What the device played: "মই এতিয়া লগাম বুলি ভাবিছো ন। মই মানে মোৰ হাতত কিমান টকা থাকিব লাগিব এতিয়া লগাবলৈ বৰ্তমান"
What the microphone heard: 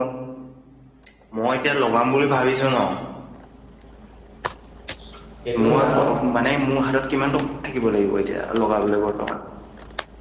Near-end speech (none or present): present